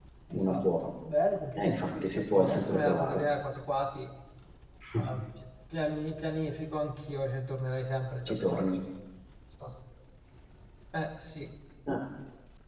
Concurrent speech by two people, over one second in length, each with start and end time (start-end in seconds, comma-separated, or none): 1.6-3.2